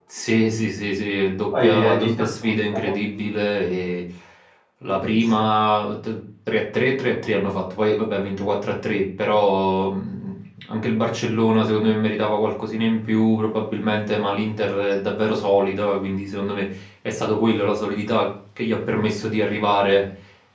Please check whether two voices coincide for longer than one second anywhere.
Yes, from 1.6 s

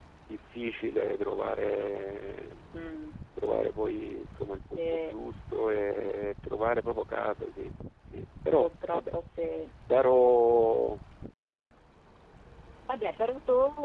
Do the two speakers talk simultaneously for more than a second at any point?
No

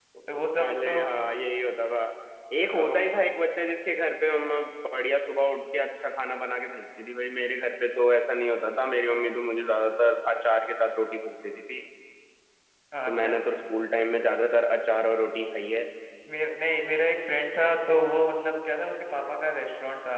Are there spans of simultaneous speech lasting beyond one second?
No

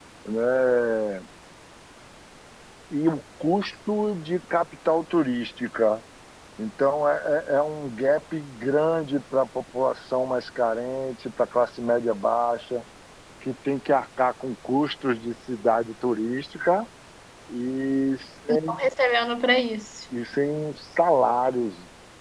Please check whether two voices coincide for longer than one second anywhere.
No

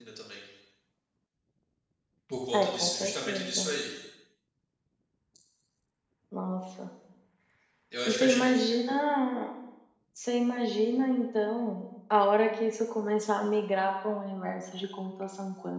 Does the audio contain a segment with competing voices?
Yes, from 2.5 s

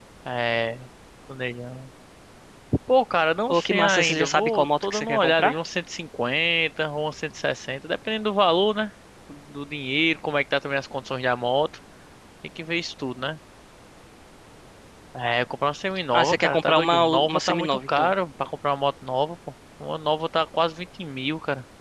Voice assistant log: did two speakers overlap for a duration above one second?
Yes, from 3.5 s

